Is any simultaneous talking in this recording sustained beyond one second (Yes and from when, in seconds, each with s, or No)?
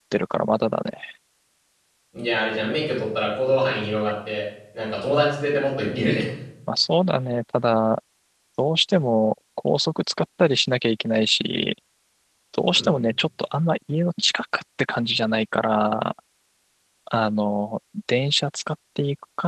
No